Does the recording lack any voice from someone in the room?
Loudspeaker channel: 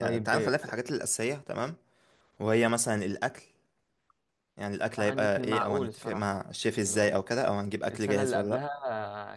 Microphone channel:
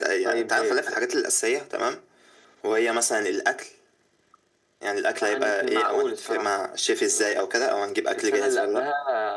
Yes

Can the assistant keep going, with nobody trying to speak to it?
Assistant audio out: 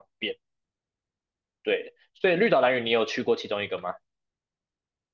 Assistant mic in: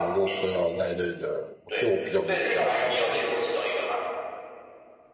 No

